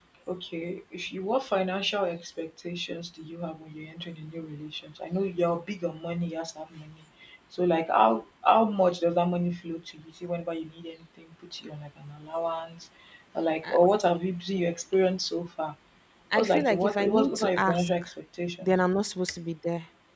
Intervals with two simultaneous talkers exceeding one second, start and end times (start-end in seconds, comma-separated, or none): 16.4-17.9